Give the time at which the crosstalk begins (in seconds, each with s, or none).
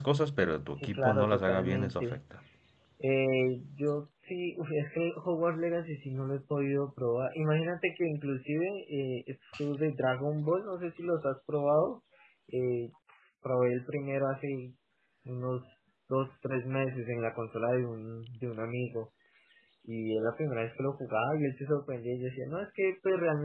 0.7 s